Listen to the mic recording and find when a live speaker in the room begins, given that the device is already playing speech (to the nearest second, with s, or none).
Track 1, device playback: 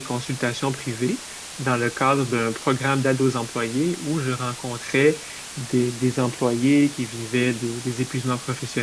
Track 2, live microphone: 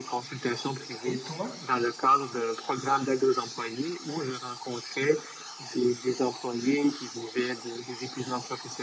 1 s